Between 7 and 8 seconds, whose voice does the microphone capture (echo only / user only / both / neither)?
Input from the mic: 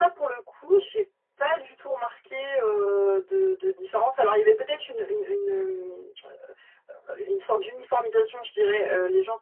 echo only